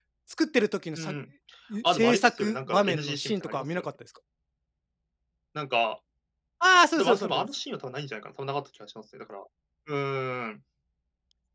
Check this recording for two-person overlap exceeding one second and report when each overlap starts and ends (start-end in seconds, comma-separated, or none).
1.8-3.9